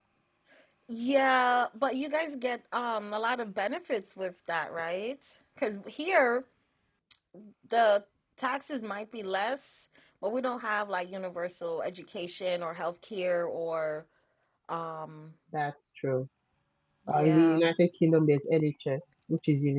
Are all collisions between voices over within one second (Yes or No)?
Yes